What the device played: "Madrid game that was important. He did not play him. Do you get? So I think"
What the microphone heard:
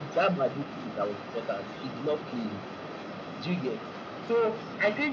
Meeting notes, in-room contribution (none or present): none